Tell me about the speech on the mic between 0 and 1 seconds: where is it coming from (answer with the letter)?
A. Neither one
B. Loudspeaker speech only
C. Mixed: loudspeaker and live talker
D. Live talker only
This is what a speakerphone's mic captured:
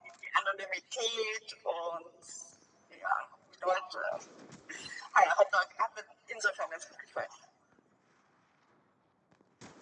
B